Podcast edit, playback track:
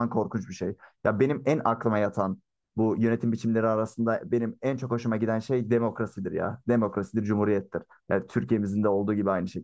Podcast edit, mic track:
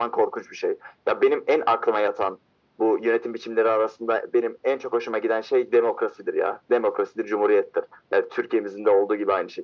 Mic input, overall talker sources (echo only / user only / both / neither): echo only